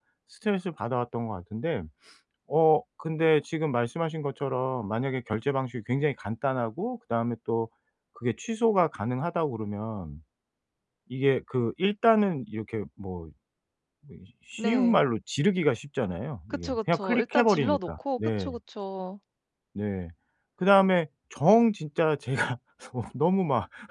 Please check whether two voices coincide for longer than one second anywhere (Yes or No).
Yes